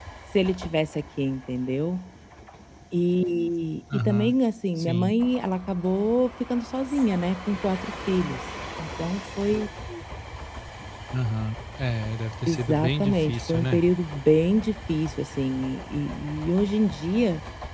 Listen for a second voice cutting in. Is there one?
Yes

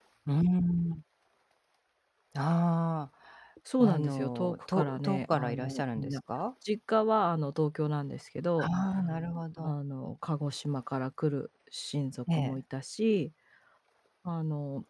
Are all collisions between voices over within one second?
No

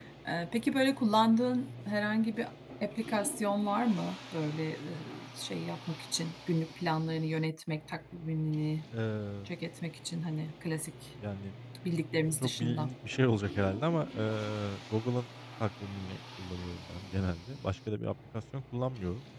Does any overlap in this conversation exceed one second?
No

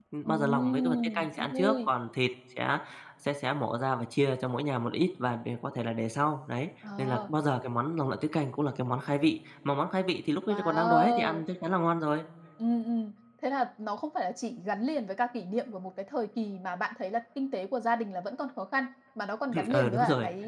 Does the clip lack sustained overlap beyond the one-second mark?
No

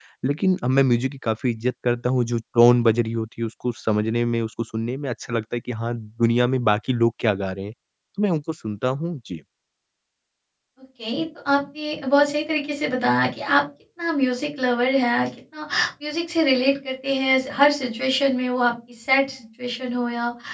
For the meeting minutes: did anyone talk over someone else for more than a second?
No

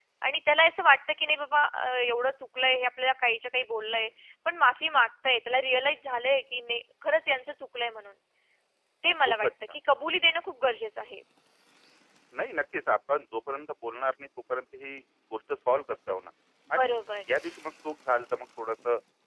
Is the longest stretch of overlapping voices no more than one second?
Yes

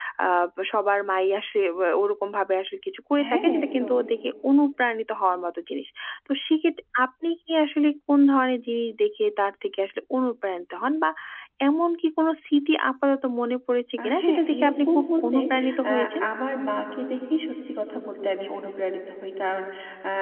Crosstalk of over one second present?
Yes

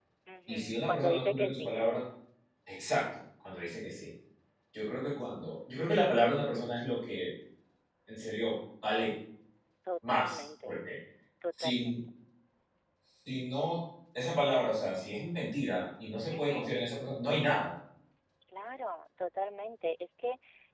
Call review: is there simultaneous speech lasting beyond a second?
Yes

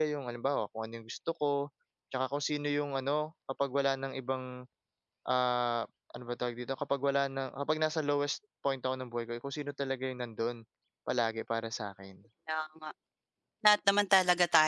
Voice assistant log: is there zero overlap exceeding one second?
Yes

